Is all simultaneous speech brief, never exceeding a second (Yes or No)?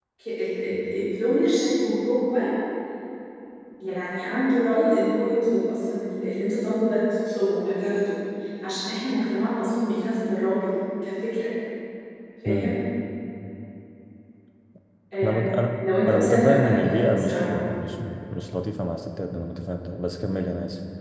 No